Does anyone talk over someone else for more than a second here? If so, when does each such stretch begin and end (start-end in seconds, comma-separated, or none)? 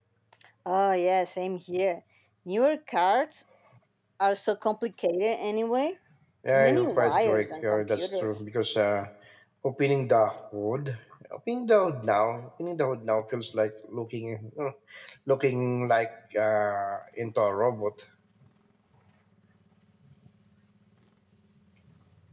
6.5-8.3